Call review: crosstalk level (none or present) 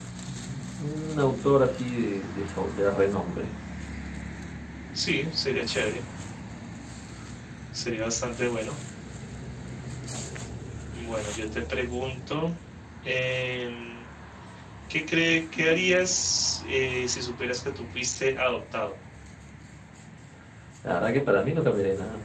none